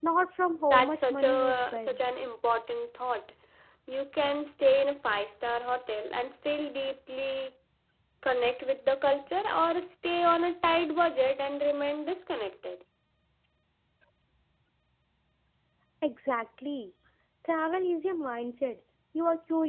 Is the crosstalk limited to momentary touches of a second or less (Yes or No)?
No